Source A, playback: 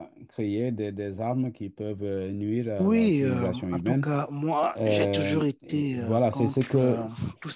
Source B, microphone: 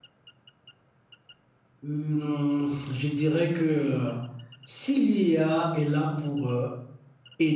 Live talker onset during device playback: 1.8 s

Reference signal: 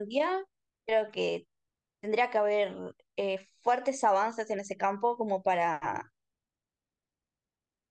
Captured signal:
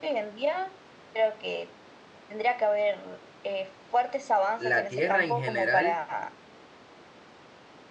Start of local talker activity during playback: 4.5 s

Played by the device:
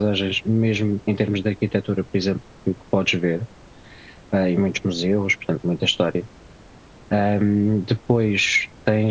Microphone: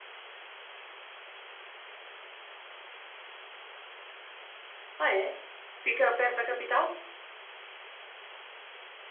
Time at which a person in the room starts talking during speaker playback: 5.0 s

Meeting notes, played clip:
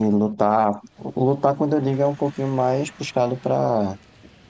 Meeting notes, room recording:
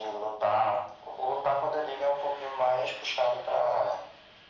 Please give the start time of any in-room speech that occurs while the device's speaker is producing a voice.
none

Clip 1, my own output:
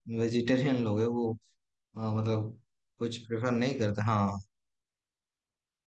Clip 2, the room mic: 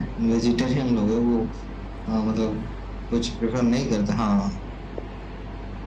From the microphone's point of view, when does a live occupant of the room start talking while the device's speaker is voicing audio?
none

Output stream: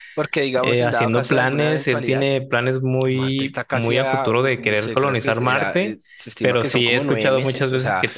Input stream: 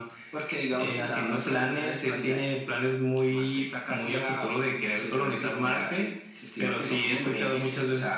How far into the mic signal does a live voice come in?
none

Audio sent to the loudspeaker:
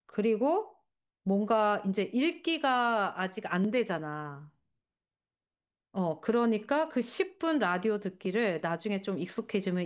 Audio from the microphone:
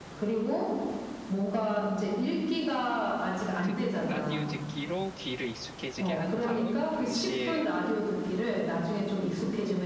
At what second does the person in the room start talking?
3.6 s

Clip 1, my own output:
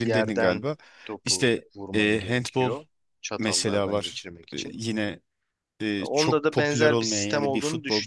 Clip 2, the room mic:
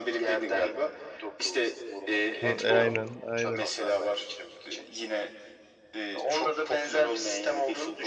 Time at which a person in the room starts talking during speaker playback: 2.4 s

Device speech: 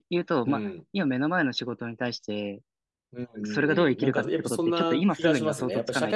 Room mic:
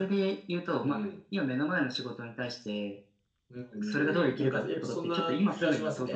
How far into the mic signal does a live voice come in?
none

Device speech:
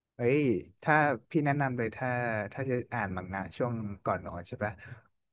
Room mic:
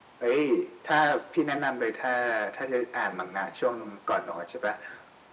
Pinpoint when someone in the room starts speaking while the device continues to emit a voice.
none

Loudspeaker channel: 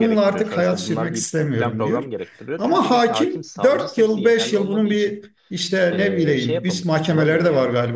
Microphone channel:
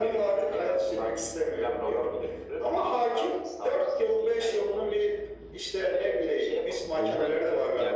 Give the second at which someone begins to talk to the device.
7.0 s

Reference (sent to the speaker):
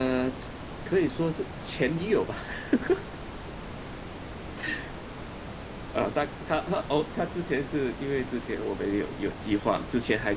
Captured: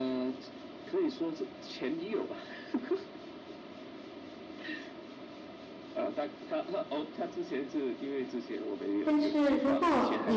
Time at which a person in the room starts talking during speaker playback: 9.0 s

